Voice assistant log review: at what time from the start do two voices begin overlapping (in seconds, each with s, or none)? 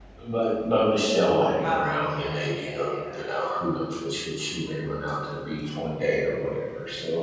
1.6 s